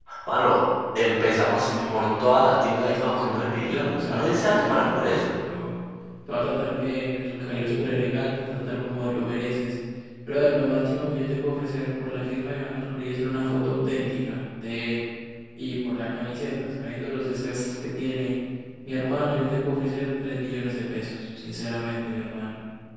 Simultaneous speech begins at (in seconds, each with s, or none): 1.4 s